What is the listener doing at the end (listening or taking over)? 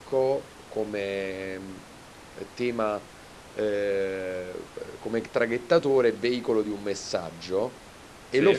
listening